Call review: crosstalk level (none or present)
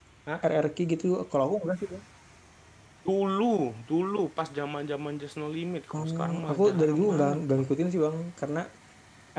present